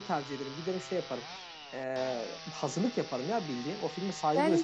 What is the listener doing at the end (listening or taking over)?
taking over